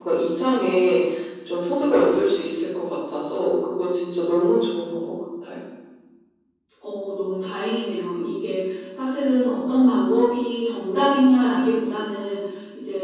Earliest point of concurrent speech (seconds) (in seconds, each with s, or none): none